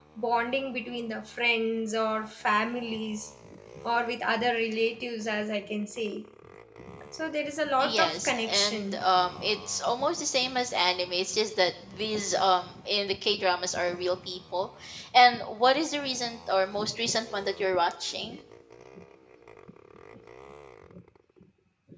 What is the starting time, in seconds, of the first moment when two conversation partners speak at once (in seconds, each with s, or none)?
7.8 s